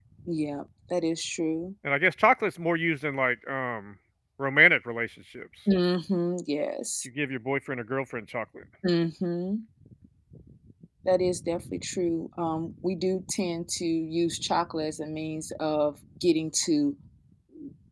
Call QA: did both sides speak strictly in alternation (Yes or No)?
Yes